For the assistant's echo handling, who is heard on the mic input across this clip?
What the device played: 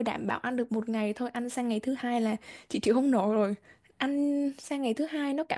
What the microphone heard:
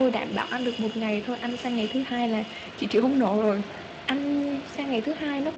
echo only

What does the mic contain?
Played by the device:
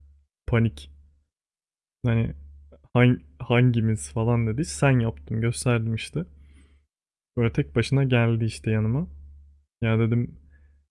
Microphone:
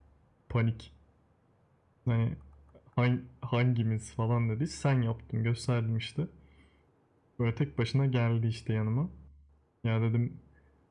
echo only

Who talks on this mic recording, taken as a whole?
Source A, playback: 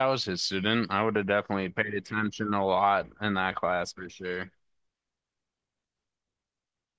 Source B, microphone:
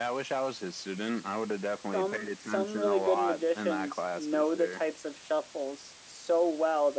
both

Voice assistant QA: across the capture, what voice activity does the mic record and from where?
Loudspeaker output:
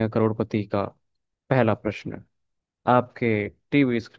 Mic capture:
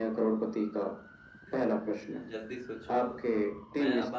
both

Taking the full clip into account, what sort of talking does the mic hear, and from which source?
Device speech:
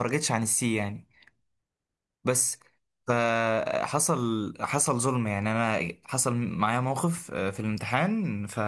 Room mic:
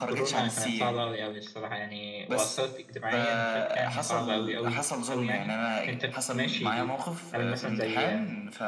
both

